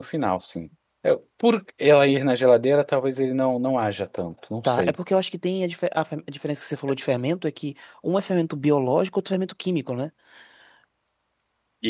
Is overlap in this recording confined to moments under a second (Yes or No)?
Yes